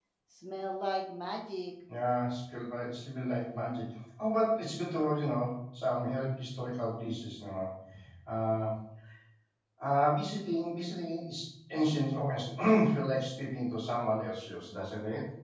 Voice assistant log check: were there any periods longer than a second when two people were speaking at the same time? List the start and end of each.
none

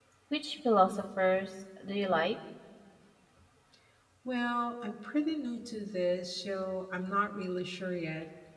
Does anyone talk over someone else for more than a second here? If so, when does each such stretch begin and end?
none

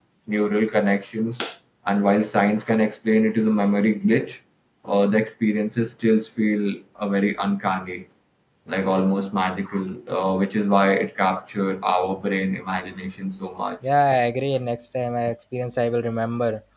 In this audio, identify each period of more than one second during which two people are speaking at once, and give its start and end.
none

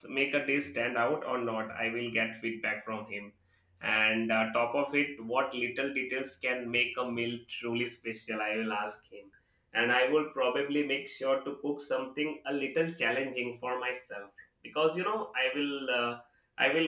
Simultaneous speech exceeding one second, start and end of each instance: none

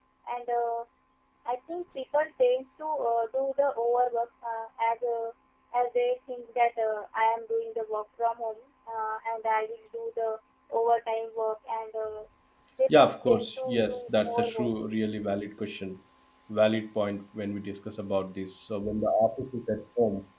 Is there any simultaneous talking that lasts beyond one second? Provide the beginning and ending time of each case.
13.0-14.7

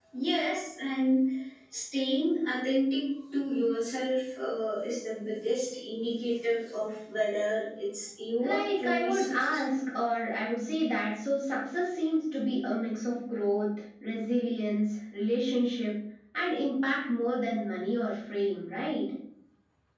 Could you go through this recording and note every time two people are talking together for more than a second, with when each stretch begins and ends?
8.4-9.6

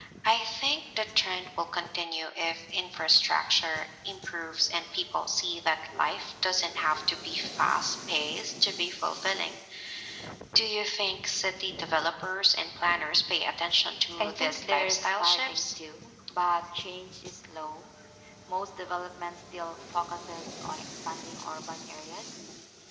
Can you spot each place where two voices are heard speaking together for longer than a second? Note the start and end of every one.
14.2-15.6

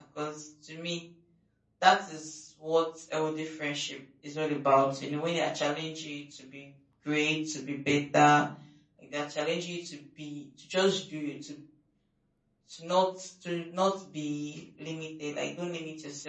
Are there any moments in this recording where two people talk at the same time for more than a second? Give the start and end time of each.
none

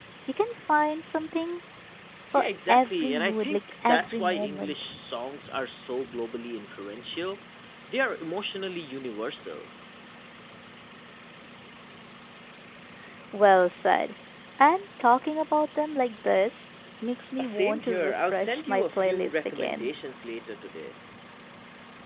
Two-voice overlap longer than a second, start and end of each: 2.4-4.9, 17.4-19.9

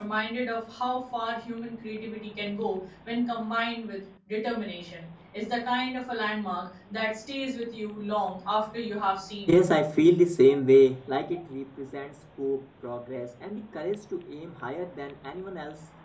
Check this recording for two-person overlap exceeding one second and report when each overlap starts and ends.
none

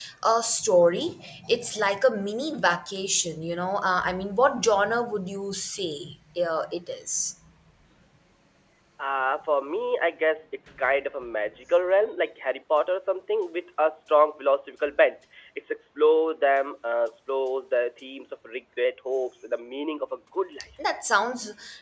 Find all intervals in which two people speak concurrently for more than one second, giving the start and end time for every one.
none

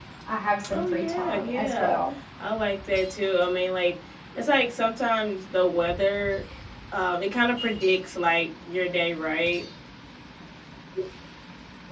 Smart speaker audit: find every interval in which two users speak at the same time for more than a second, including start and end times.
0.7-2.0

